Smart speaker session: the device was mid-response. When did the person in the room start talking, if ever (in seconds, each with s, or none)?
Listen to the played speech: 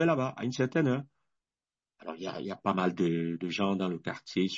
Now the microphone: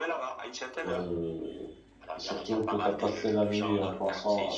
0.8 s